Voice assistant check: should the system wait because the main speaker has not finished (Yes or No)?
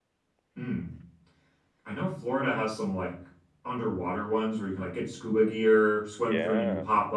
Yes